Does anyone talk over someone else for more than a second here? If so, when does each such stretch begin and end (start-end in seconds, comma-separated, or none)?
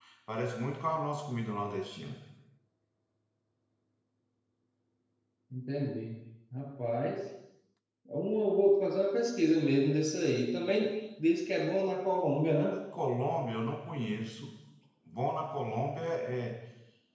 none